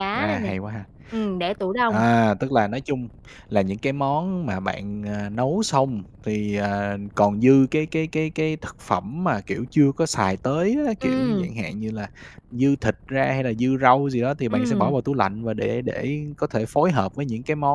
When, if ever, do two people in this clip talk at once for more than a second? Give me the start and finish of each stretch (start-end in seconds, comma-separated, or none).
none